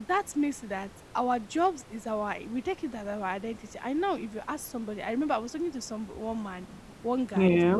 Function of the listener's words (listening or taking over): listening